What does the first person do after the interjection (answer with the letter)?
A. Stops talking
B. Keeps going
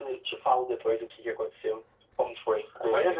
A